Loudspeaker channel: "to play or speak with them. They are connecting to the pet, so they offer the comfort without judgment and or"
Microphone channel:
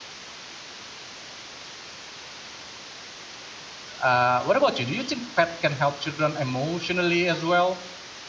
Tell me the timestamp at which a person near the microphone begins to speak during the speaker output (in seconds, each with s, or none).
4.0 s